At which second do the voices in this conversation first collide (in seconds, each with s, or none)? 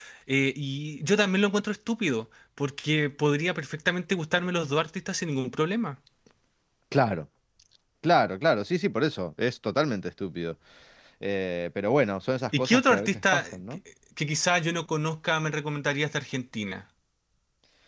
12.5 s